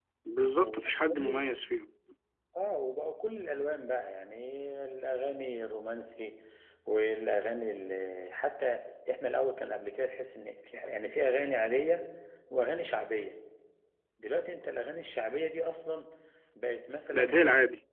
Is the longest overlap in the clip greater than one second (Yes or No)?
No